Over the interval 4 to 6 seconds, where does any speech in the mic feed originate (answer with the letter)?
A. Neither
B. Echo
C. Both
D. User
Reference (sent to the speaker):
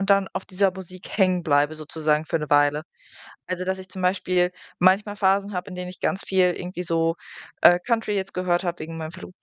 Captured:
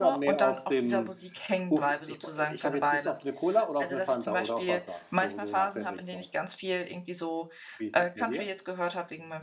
C